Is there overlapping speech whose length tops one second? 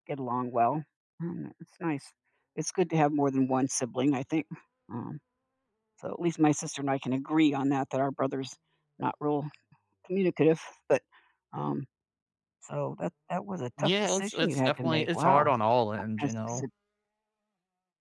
Yes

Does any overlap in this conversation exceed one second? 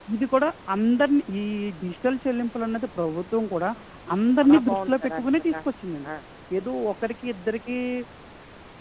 Yes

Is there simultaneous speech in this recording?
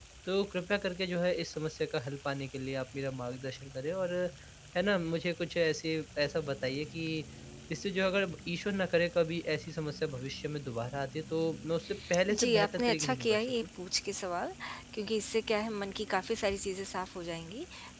Yes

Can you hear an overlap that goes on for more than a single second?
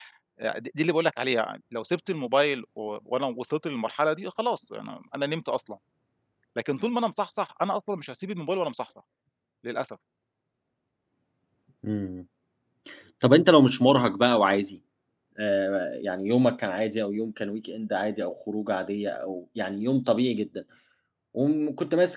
No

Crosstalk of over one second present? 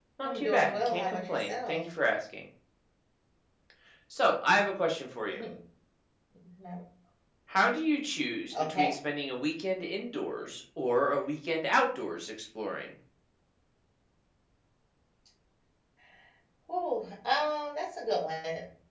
Yes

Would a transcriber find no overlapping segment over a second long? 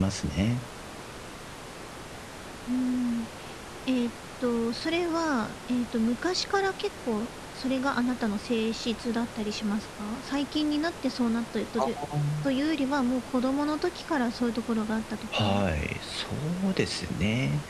Yes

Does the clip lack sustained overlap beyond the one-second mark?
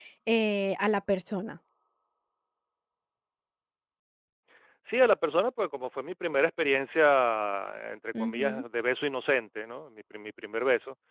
Yes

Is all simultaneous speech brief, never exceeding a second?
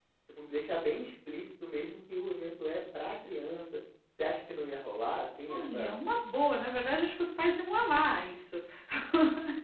Yes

